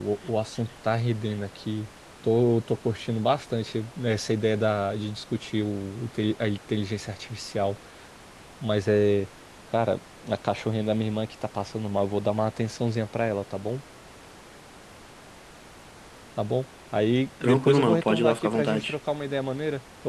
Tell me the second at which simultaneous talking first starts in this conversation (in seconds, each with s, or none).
17.4 s